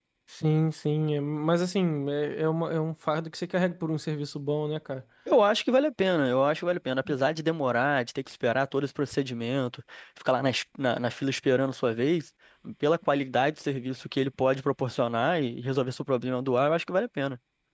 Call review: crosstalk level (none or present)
none